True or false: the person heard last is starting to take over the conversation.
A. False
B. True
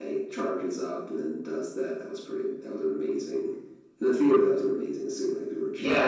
B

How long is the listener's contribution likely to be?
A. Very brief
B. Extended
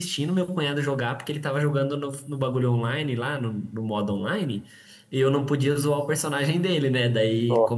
A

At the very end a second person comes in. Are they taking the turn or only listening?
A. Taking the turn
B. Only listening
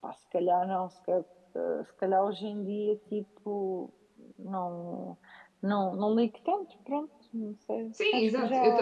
A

